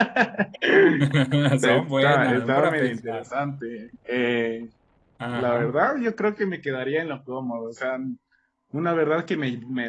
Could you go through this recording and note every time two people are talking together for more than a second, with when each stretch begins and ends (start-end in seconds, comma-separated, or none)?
1.6-3.3